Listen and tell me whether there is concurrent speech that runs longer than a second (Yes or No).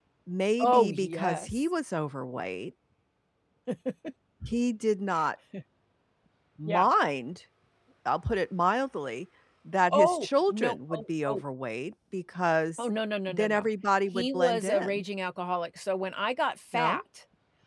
Yes